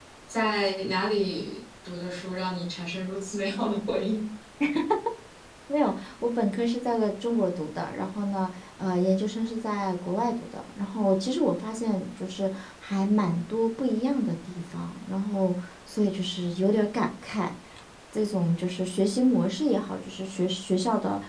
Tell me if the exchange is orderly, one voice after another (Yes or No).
Yes